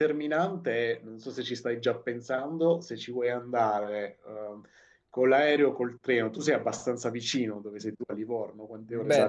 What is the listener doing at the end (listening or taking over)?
taking over